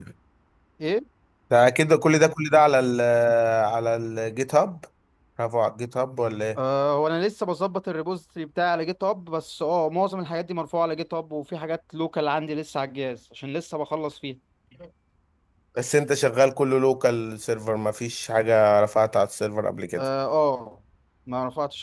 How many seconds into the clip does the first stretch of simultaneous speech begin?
none

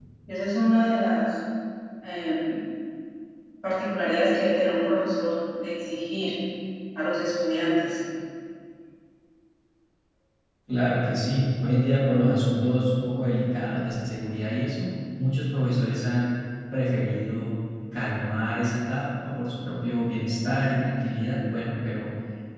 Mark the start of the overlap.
none

